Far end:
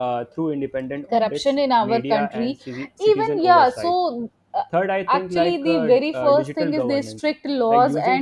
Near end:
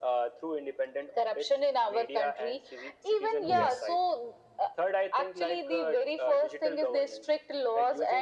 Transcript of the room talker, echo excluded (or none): Yes.